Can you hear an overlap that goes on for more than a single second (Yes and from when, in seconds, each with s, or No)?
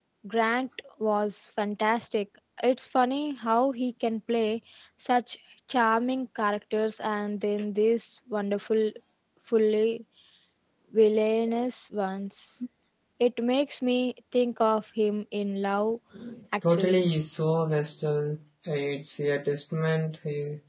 No